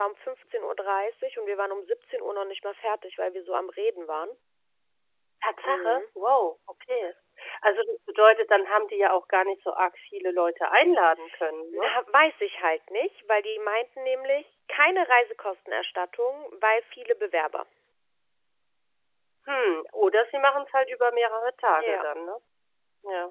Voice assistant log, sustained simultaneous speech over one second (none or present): none